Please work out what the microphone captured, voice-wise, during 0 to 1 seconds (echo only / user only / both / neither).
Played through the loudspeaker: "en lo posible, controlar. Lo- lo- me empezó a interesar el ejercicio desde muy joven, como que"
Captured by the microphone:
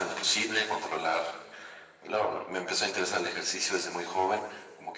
echo only